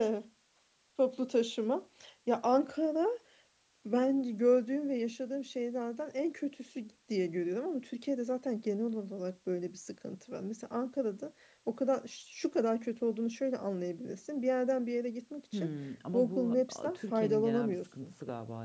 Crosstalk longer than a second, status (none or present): present